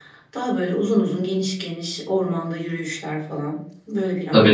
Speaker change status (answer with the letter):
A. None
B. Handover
B